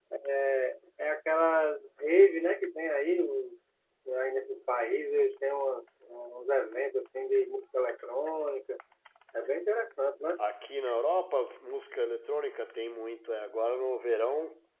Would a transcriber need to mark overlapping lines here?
No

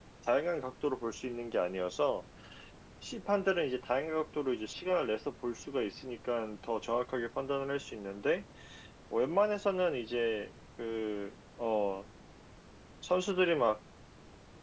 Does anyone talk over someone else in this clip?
No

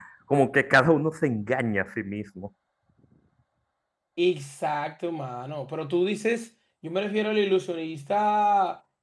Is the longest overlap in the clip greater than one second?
No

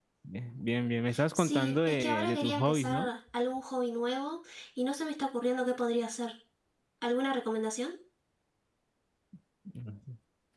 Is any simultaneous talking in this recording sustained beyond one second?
Yes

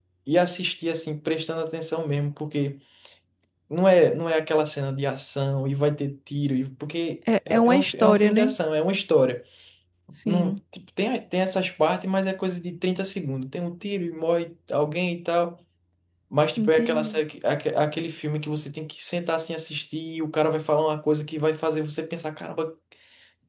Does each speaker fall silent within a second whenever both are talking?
No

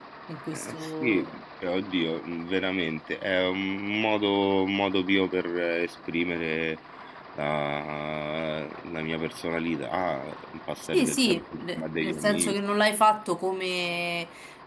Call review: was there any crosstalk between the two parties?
Yes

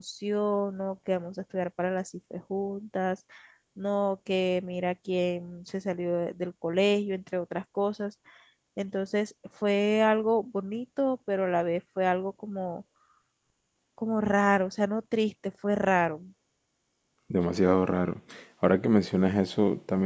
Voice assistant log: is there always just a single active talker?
Yes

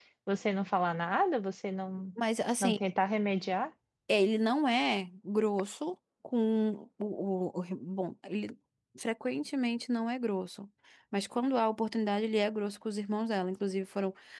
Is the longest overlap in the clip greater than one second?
No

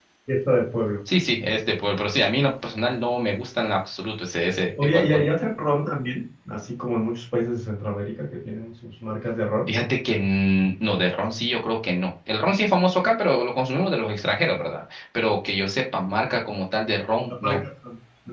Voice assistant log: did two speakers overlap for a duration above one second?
No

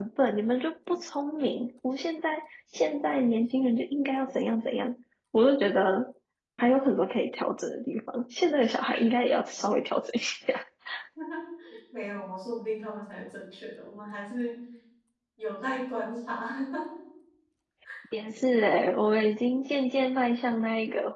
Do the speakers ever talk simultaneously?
No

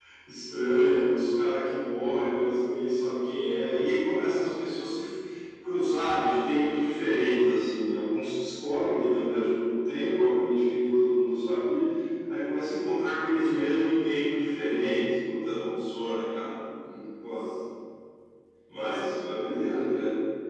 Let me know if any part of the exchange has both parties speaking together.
Yes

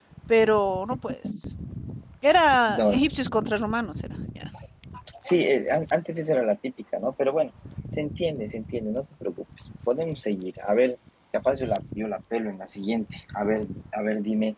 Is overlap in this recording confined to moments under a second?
Yes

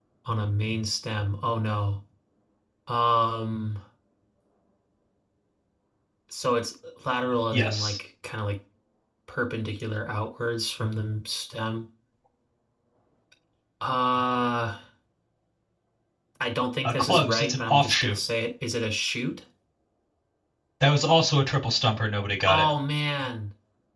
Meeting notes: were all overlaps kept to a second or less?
No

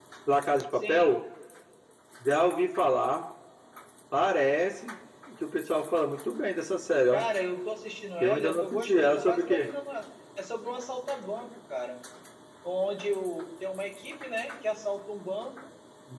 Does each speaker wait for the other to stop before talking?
No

